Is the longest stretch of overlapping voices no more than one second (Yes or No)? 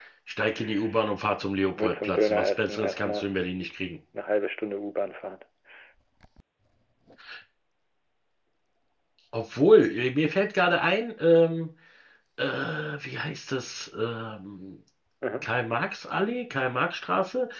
No